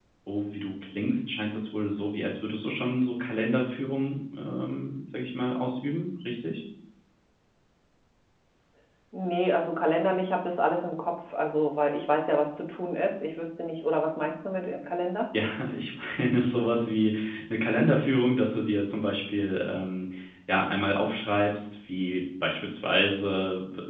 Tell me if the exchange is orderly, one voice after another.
Yes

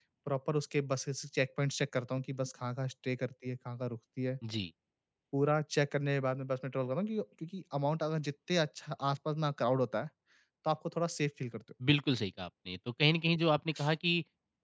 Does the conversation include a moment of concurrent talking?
No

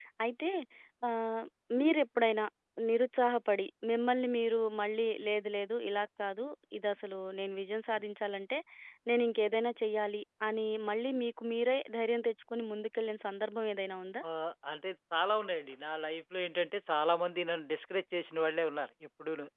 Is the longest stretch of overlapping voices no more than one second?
Yes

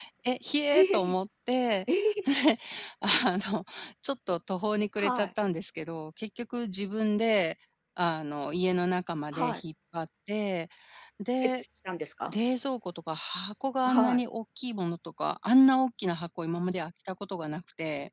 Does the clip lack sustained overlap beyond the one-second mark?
Yes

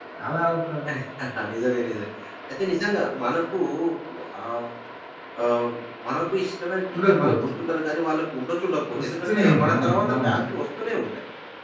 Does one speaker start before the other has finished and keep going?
Yes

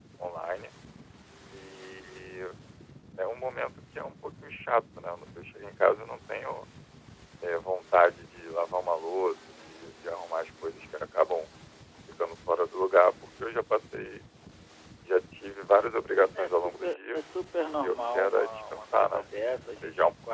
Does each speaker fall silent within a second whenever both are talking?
No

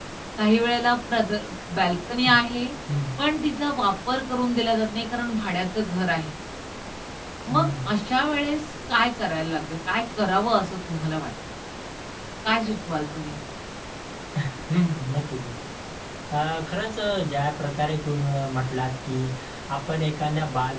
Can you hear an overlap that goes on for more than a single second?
No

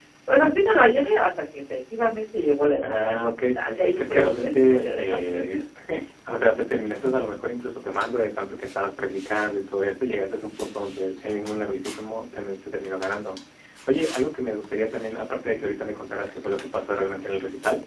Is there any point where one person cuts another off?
Yes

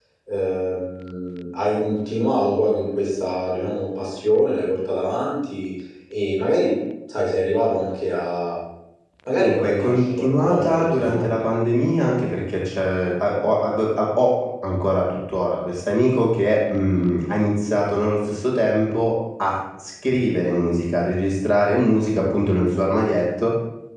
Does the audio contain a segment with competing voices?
Yes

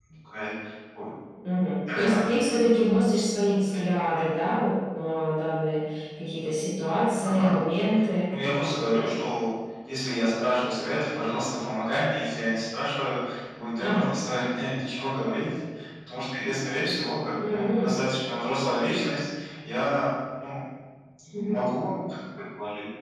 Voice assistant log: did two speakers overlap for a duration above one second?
No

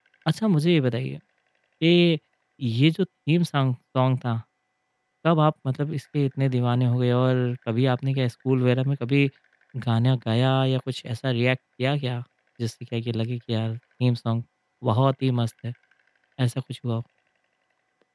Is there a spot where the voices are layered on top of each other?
No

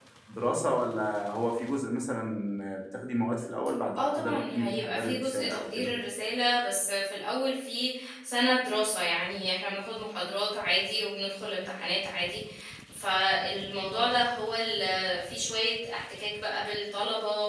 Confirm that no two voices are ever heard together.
No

